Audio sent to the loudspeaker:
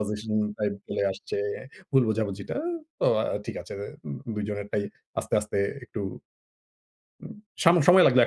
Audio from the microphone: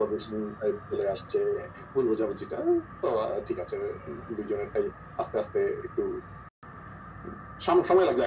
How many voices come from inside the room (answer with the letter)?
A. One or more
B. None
B